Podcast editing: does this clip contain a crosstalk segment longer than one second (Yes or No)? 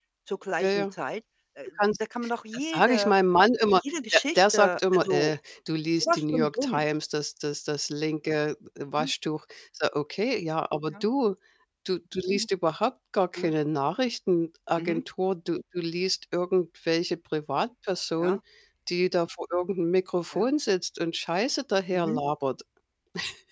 Yes